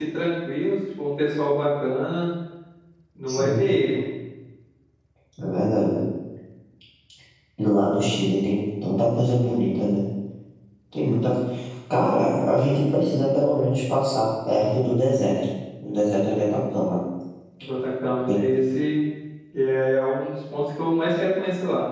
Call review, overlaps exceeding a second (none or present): none